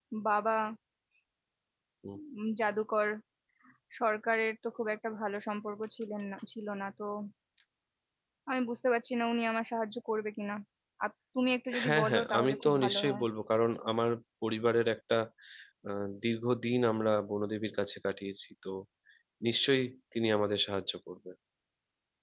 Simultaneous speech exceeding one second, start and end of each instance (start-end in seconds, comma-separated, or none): 11.8-13.2